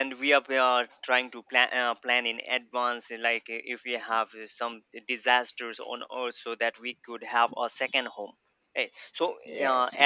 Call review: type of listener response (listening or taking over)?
listening